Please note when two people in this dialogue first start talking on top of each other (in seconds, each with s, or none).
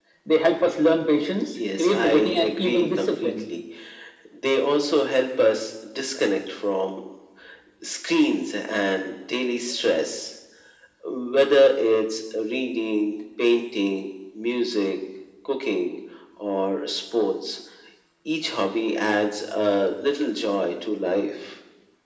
1.6 s